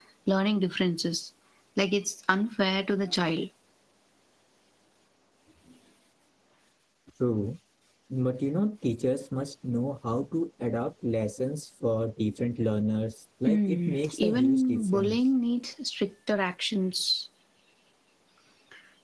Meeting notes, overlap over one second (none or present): present